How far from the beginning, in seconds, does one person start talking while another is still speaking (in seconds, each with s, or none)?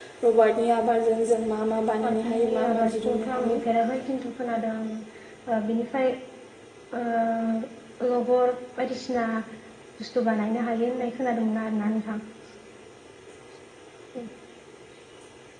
2.0 s